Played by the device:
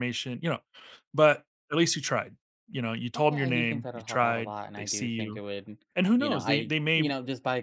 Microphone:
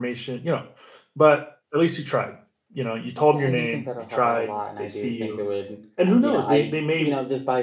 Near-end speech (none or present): none